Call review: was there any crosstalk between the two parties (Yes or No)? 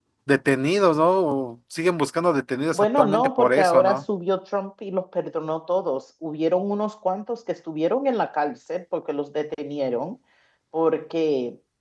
Yes